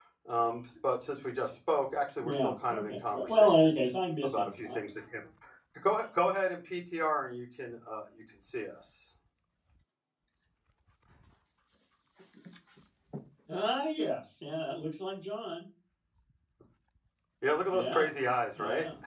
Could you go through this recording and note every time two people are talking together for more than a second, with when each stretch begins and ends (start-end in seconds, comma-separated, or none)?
2.2-3.7